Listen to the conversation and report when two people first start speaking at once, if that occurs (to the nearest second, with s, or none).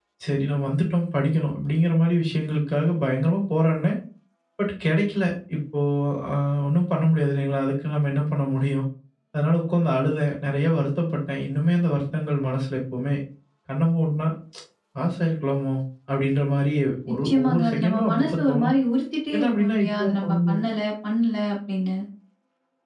17 s